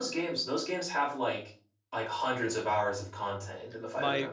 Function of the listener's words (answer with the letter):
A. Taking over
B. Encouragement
A